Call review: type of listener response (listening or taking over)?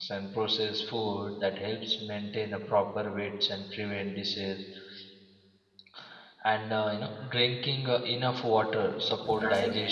listening